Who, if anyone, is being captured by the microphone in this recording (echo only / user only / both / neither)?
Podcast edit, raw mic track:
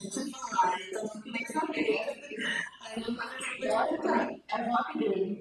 echo only